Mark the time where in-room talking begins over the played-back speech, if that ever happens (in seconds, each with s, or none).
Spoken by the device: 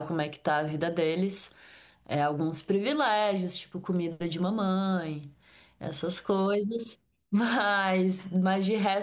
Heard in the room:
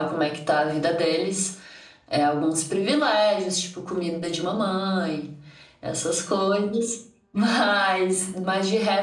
none